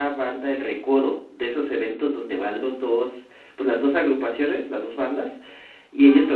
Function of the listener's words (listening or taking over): listening